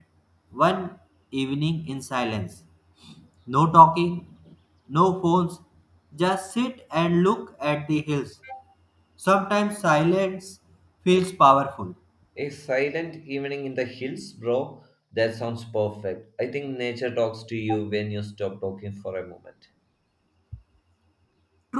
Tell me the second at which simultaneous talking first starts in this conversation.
none

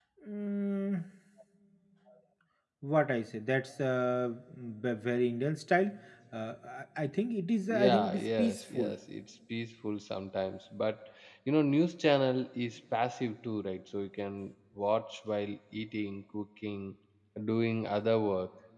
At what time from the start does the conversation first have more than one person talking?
7.7 s

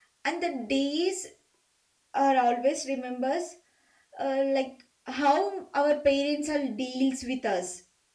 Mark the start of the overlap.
none

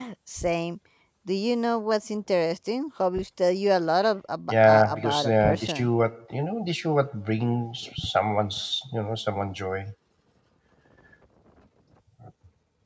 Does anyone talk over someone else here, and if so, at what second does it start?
4.5 s

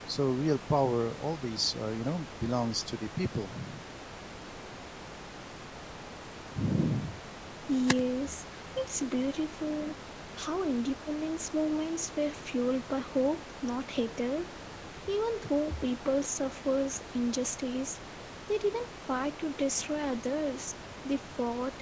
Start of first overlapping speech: none

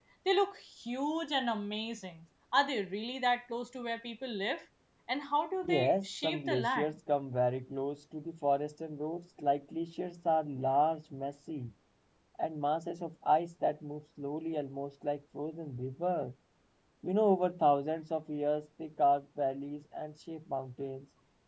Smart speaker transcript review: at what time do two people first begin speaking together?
5.6 s

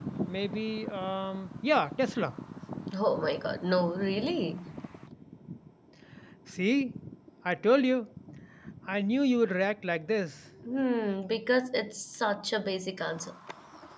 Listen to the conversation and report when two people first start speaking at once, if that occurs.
none

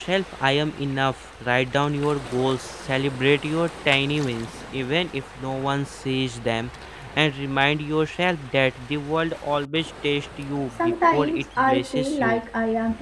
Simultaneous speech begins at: 10.8 s

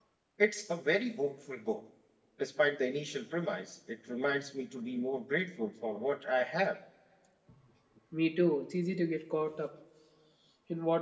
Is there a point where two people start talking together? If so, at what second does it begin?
none

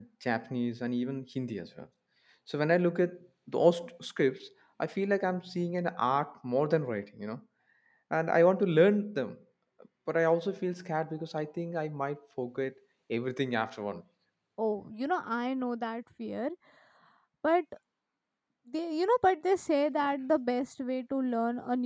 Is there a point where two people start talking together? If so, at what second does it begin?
none

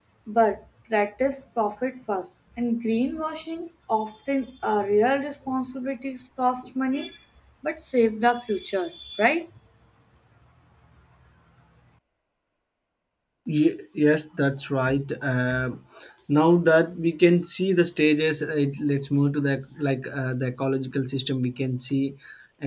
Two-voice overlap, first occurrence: none

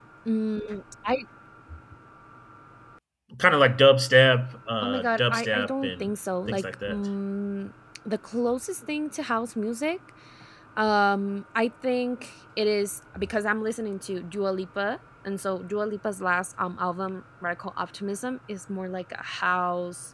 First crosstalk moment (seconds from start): 4.8 s

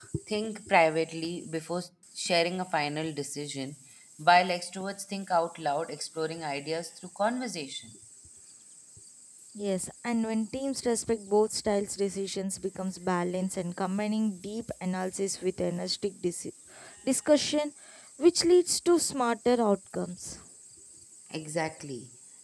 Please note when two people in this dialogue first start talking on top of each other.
none

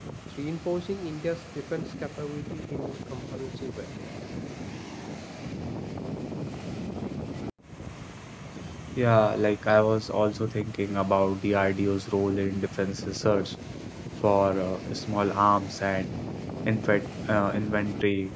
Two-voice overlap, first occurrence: none

